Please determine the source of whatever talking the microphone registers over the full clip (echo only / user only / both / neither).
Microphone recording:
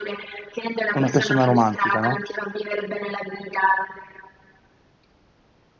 both